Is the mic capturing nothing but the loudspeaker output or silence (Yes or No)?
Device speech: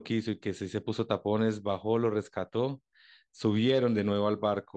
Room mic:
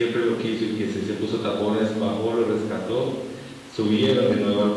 Yes